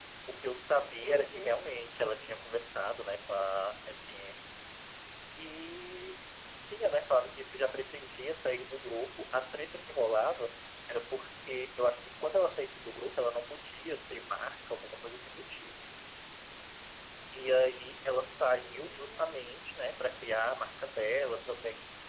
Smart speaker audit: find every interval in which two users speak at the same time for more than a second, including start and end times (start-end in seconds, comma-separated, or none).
18.2-19.4